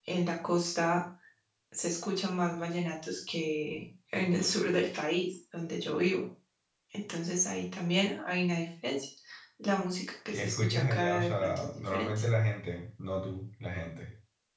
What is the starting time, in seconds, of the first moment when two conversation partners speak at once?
10.3 s

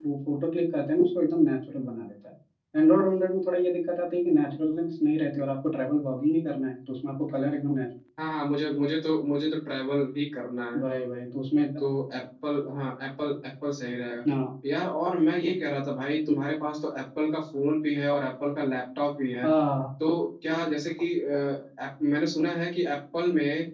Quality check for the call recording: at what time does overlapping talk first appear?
none

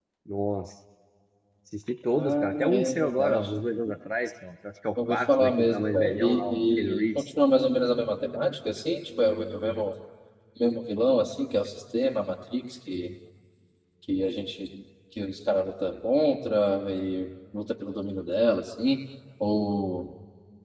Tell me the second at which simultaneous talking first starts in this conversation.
2.1 s

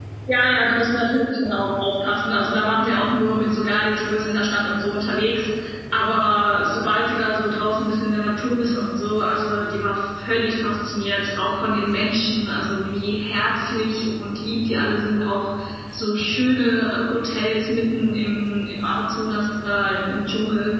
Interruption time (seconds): none

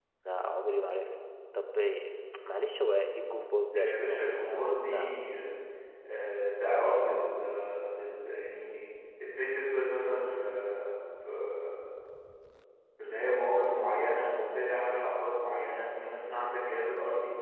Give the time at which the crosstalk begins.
3.7 s

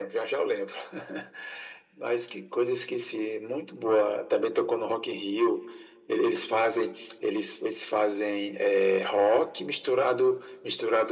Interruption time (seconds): none

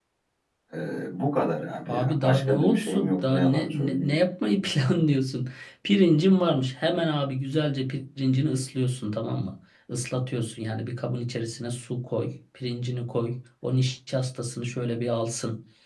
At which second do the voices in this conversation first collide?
1.8 s

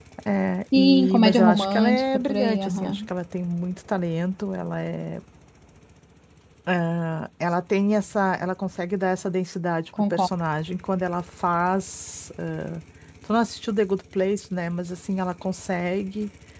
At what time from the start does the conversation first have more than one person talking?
0.7 s

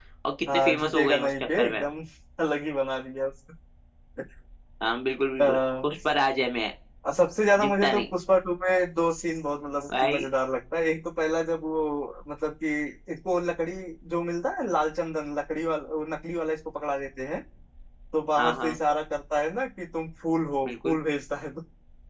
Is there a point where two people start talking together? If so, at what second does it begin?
0.5 s

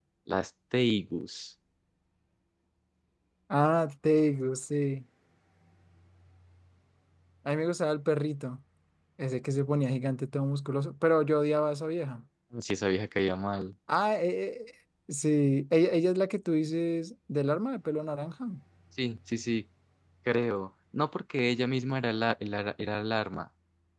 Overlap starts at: none

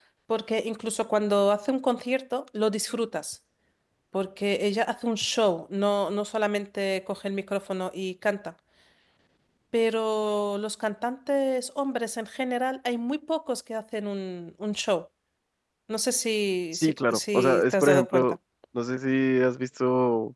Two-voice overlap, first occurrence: 16.7 s

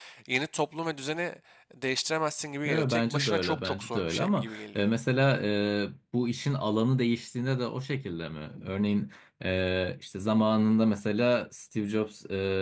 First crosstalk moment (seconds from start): 2.6 s

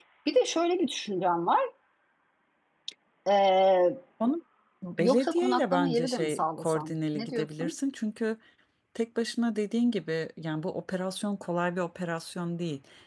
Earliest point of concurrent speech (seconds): 5.0 s

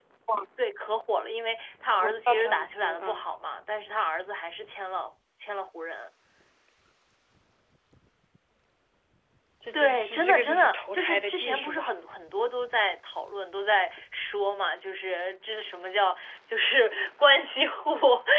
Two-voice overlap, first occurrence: 2.0 s

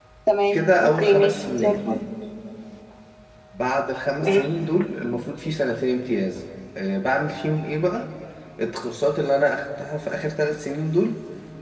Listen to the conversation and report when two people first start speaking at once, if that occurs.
0.5 s

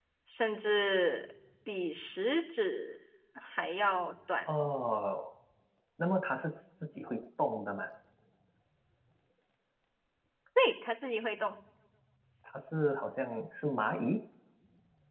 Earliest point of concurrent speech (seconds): none

